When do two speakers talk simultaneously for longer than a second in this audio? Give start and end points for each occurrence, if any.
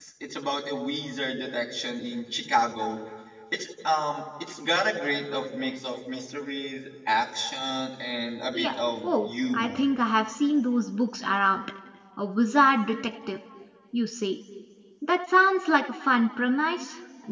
8.5-9.8

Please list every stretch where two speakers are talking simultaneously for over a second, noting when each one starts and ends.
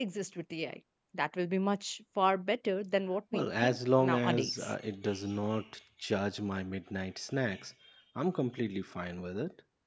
3.3-4.7

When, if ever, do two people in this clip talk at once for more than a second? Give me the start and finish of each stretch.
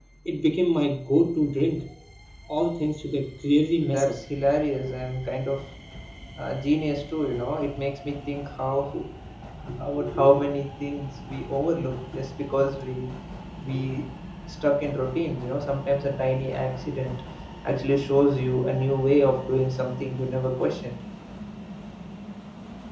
none

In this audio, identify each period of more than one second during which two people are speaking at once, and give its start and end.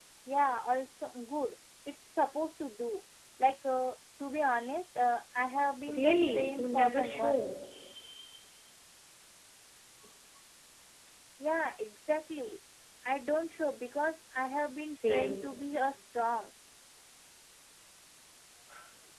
6.0-7.4

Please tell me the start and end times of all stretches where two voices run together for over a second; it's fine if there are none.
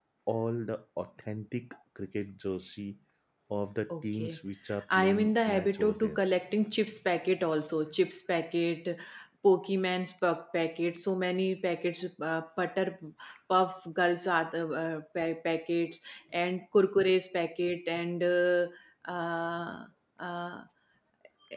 5.0-6.2

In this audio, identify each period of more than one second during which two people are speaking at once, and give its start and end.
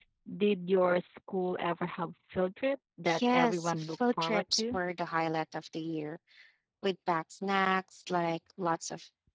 3.3-4.8

